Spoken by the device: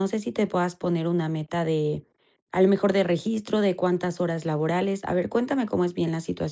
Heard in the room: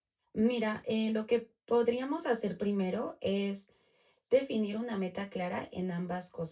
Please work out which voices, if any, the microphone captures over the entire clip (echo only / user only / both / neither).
user only